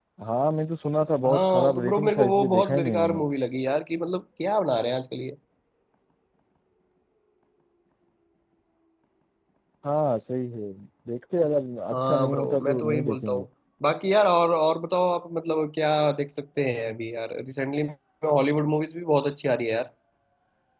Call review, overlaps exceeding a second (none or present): present